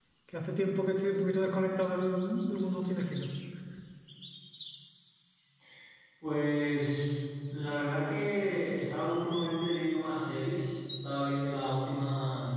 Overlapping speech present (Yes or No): No